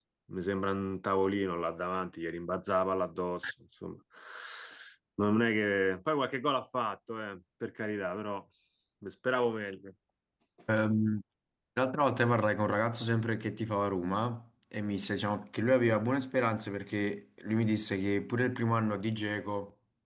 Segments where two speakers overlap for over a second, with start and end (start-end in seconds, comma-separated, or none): none